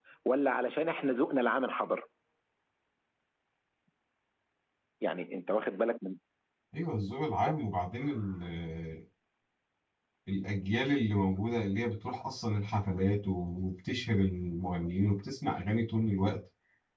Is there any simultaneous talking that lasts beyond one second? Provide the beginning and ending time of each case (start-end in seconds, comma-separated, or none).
none